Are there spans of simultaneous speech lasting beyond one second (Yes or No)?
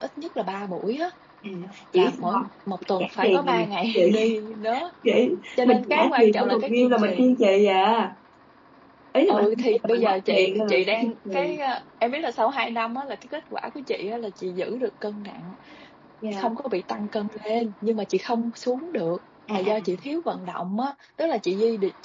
Yes